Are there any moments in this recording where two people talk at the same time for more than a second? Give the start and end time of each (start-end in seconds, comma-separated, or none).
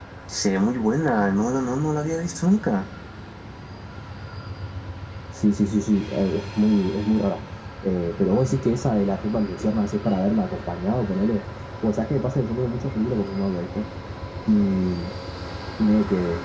none